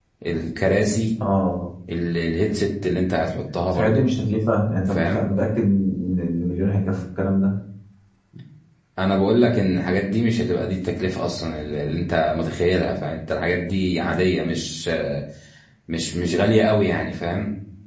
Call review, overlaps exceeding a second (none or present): none